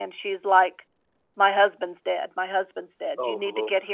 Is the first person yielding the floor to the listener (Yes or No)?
No